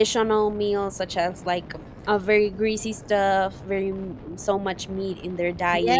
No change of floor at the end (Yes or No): No